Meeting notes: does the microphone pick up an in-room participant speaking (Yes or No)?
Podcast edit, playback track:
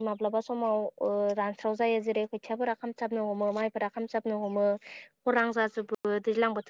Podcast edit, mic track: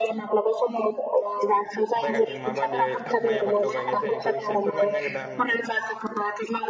Yes